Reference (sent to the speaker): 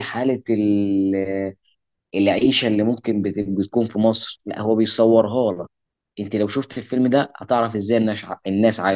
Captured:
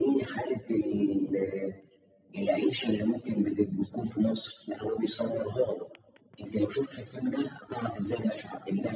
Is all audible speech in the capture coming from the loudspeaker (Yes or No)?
Yes